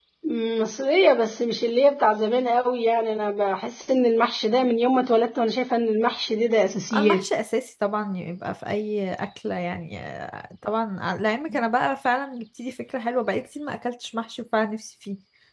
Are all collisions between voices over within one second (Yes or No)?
Yes